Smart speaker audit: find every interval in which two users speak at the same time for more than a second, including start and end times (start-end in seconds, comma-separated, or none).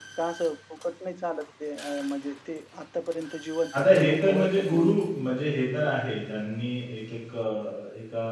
3.7-5.0